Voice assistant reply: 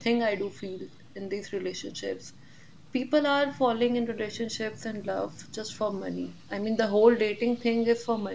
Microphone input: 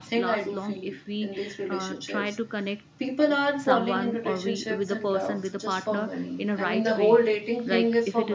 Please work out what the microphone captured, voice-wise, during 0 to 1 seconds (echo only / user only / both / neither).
both